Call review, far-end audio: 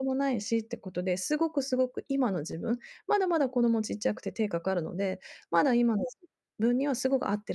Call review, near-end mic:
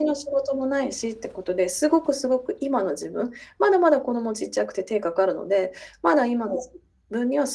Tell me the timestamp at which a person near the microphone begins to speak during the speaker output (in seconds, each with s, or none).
none